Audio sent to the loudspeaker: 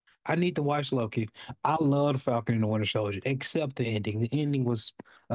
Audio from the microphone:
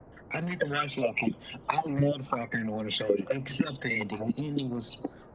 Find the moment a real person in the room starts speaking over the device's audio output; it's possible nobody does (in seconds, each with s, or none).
none